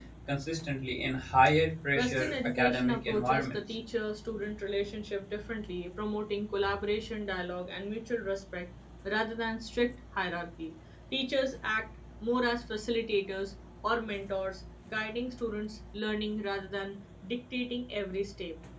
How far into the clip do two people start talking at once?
2.0 s

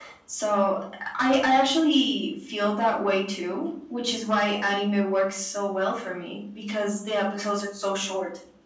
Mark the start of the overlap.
none

